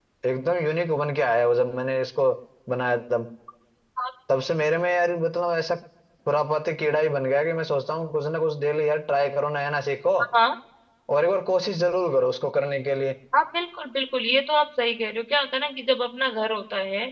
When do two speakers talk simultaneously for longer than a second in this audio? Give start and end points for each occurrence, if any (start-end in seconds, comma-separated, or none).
none